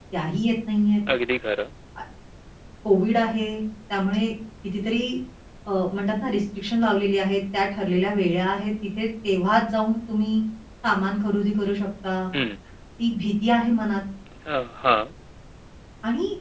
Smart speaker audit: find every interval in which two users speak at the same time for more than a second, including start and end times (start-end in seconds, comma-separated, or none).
none